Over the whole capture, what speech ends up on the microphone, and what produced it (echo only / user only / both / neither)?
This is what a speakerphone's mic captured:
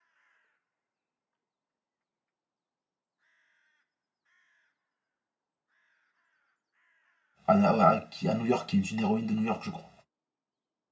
user only